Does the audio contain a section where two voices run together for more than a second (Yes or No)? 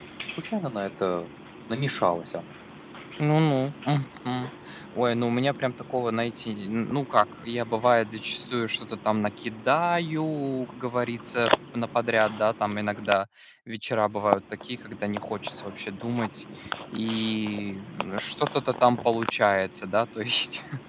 No